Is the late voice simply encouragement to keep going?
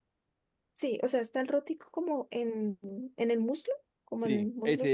No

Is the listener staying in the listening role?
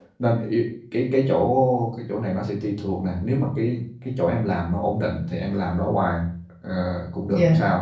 Yes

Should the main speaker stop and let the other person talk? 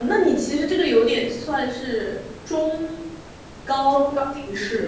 Yes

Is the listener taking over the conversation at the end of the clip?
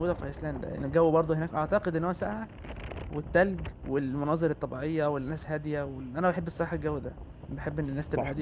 Yes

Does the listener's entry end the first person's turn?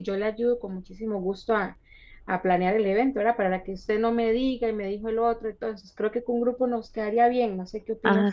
Yes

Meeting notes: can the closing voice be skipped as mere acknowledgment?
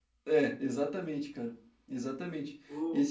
Yes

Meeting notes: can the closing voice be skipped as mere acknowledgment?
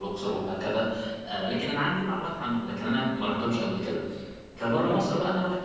Yes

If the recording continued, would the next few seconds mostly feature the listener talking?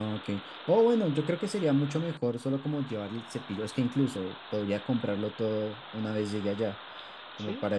Yes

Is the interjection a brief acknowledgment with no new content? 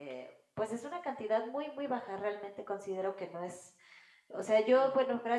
Yes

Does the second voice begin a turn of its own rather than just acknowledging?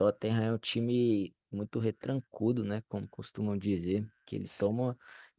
No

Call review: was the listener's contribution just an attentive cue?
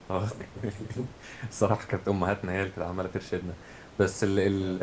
Yes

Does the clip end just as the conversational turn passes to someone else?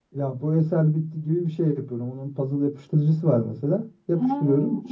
No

